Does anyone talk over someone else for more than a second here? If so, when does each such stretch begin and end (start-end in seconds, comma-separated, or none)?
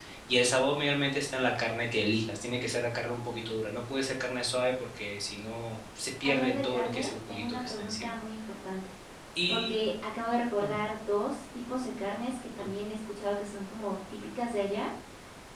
6.2-8.1